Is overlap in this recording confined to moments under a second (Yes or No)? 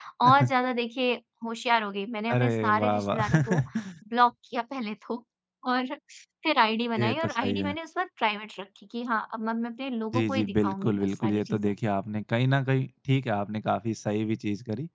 No